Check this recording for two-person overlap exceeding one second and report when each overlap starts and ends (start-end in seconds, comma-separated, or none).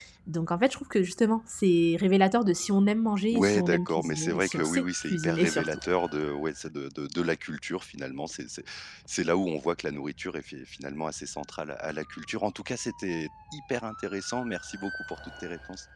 3.3-5.8